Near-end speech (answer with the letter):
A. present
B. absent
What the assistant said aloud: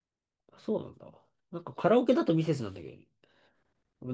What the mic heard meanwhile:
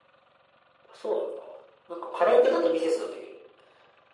B